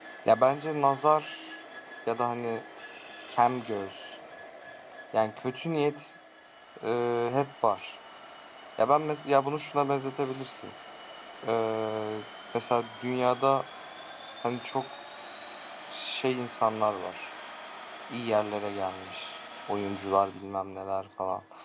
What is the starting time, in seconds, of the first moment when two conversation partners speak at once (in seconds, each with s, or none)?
none